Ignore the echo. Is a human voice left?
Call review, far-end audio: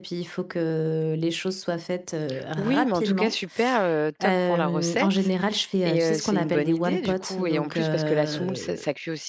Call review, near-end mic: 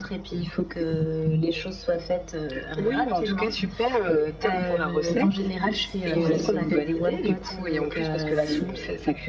Yes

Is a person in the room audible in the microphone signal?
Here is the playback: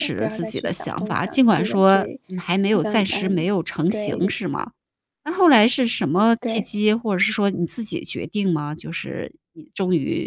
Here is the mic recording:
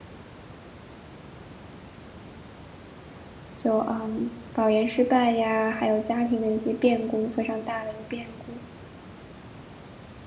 Yes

